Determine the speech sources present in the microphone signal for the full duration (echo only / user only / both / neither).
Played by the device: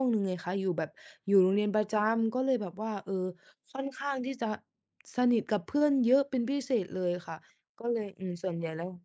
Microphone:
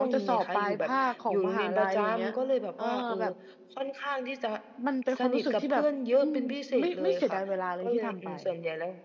both